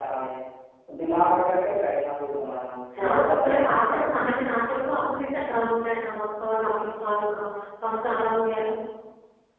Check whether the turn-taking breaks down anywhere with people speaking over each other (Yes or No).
Yes